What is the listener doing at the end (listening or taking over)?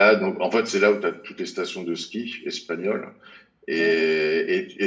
listening